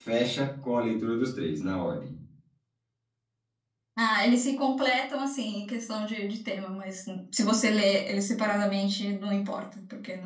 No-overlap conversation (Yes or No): Yes